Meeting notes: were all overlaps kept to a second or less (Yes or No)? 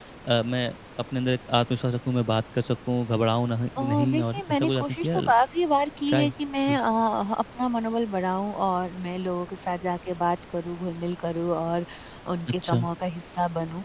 No